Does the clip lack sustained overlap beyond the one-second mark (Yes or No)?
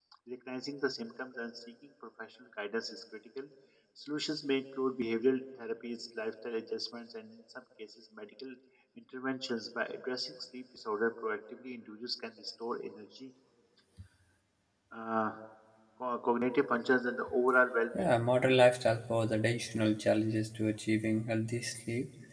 Yes